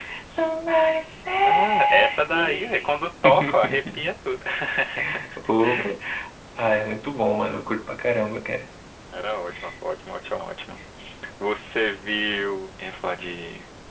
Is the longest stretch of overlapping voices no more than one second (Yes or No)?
No